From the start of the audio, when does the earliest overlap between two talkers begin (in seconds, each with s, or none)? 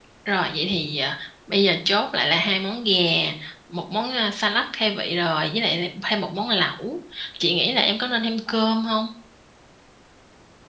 none